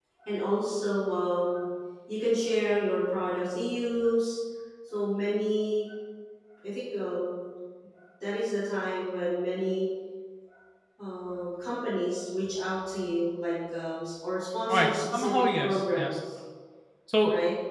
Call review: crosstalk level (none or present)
present